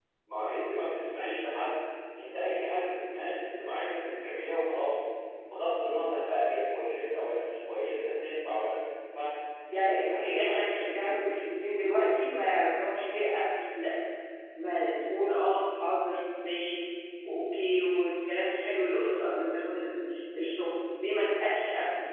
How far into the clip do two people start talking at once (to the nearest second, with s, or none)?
10 s